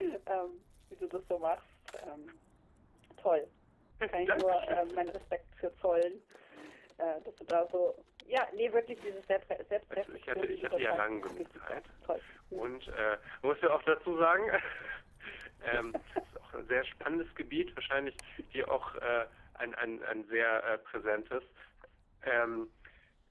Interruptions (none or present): present